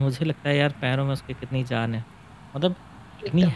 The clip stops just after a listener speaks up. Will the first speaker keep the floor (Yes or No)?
Yes